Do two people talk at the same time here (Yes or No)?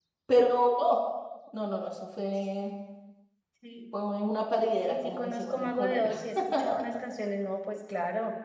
Yes